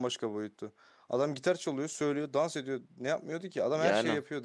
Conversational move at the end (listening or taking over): taking over